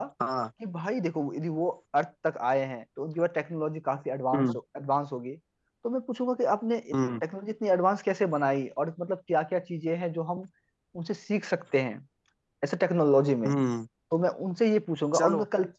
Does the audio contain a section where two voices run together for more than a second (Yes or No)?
No